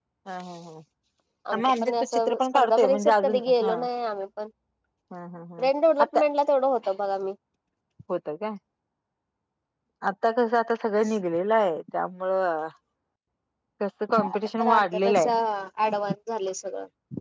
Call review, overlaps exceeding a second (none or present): present